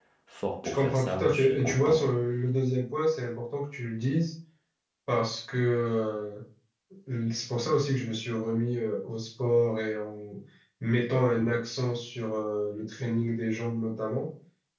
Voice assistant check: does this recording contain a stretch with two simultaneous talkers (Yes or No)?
Yes